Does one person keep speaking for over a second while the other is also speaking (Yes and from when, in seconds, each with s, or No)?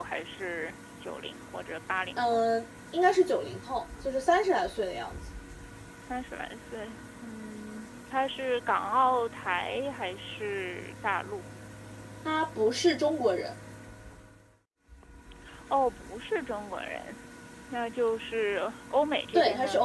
No